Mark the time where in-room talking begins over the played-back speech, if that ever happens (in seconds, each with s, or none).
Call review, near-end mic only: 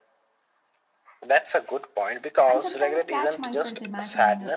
2.5 s